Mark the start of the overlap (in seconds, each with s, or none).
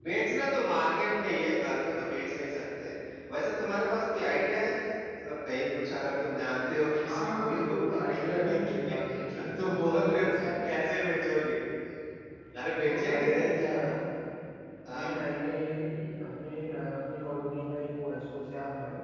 7.0 s